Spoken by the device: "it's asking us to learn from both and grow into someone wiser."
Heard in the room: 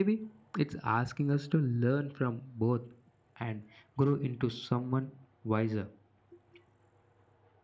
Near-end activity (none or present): none